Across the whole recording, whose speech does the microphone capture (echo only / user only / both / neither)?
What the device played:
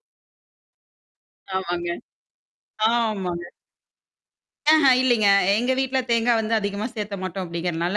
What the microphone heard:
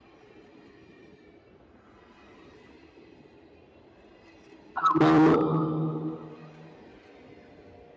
user only